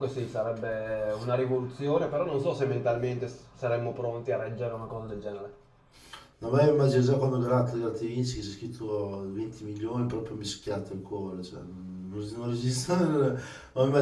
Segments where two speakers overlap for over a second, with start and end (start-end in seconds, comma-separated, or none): none